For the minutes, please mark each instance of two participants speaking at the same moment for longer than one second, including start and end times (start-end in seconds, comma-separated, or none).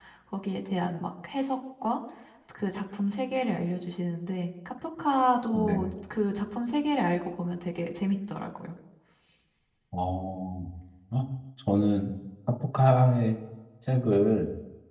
none